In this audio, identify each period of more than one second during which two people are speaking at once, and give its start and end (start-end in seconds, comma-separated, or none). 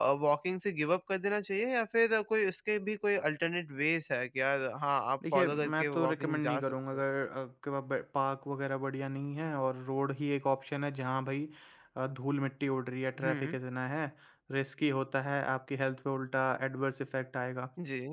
5.3-7.0